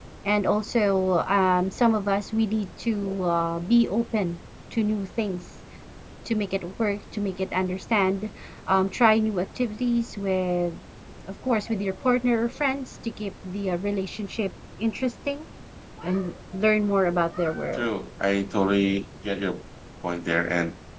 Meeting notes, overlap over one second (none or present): none